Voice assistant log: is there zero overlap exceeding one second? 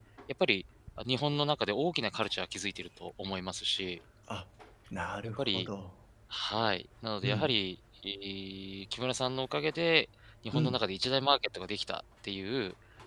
Yes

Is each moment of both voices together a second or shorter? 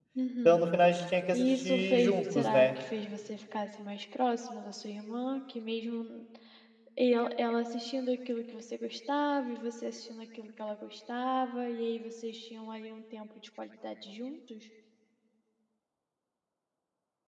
No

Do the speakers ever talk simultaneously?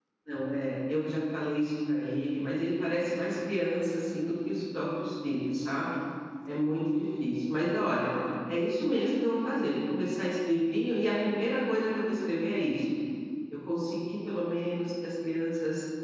No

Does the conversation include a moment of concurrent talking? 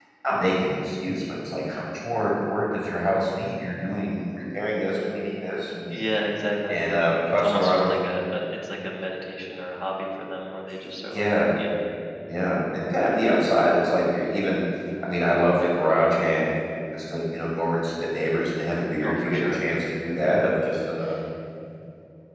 Yes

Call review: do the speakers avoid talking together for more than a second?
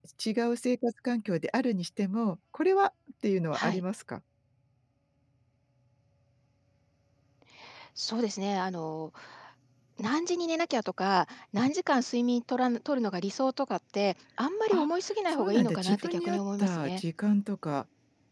No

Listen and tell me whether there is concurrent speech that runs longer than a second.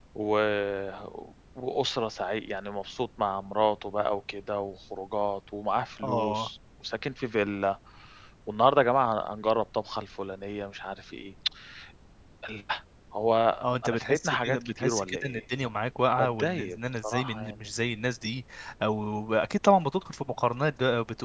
Yes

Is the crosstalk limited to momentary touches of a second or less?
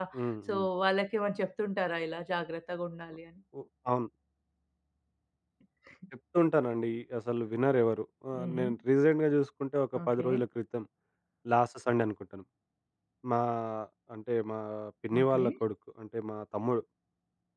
Yes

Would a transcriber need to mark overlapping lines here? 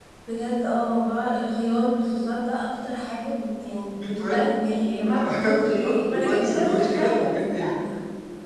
Yes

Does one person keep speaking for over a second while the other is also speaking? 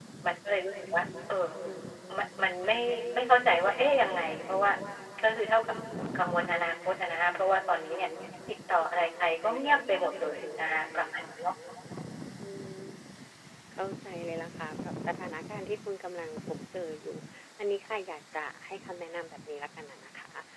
No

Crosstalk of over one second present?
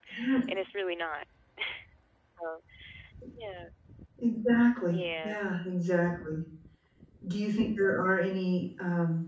No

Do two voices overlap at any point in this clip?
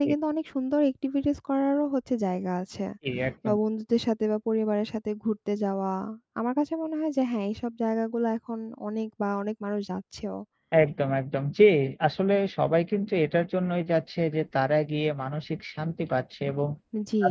No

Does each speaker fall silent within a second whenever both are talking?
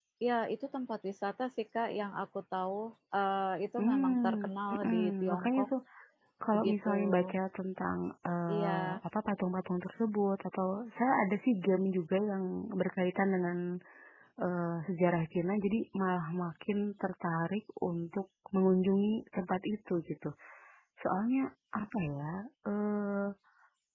No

